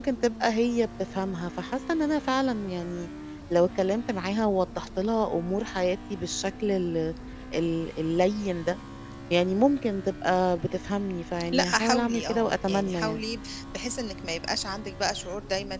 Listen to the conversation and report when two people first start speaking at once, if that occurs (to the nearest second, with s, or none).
11 s